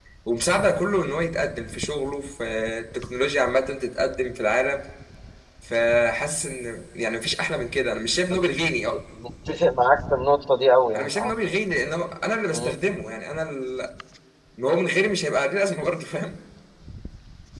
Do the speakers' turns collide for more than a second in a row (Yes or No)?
No